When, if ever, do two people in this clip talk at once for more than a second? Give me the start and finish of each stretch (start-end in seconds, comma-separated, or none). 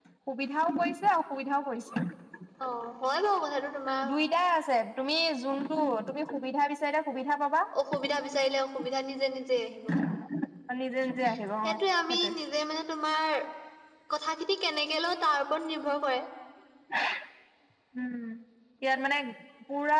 none